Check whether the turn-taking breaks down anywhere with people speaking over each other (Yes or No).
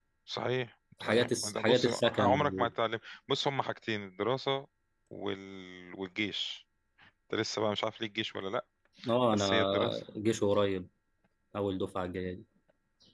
Yes